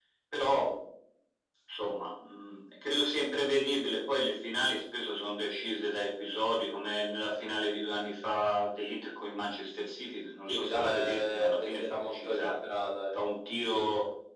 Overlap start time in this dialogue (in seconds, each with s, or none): 10.5 s